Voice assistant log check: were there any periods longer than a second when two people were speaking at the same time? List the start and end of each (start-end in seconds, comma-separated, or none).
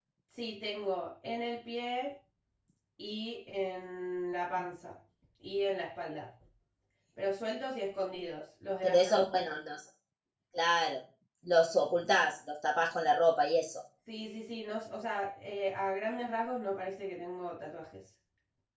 none